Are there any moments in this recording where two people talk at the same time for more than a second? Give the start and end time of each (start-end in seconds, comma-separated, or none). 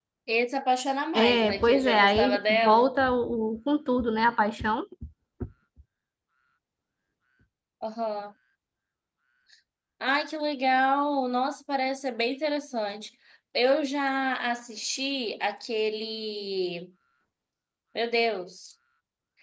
1.1-2.9